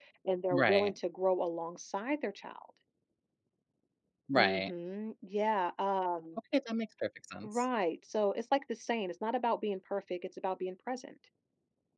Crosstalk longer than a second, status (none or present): none